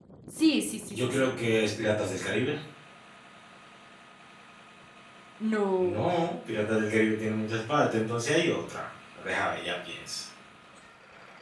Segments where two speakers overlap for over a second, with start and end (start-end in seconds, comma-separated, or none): none